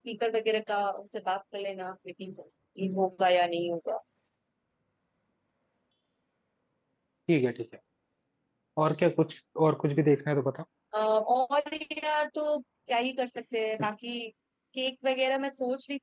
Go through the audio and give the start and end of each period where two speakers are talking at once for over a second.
none

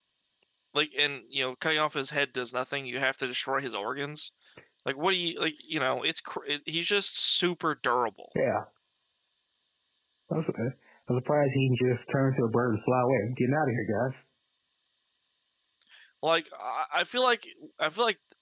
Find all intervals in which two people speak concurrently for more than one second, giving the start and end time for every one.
none

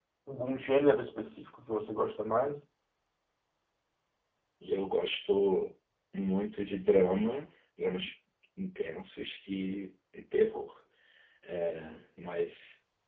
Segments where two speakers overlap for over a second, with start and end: none

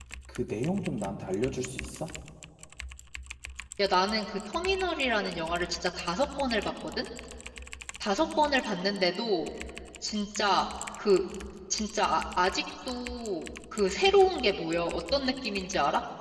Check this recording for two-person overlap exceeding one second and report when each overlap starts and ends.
none

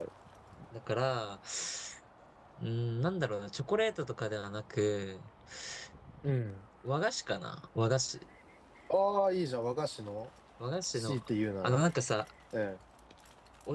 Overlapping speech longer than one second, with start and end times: none

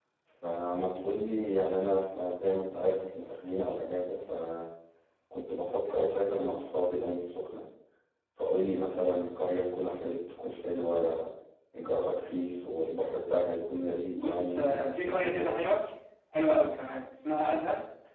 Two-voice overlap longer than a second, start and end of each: 14.1-15.6

